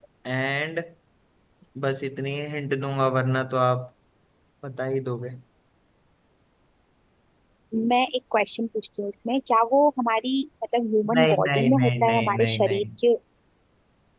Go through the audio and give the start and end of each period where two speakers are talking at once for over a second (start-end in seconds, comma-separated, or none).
11.2-12.8